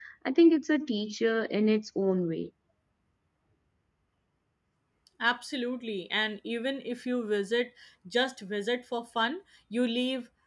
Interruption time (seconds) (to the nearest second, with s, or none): none